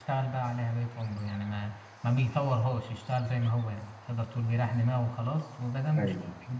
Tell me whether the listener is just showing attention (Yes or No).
Yes